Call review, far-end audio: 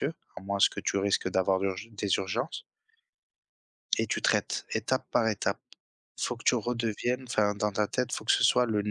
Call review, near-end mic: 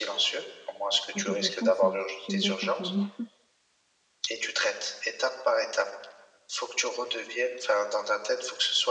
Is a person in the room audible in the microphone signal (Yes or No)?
Yes